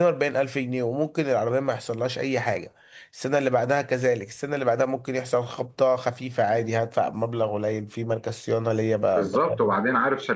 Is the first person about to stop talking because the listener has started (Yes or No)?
Yes